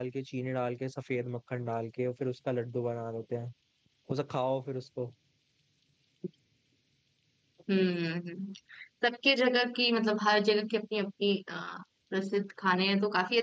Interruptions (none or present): none